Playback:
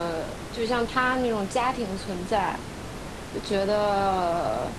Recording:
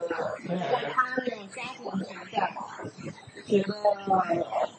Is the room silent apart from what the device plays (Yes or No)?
No